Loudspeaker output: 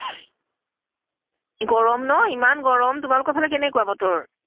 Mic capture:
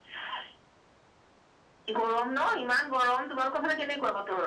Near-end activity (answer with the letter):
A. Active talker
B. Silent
B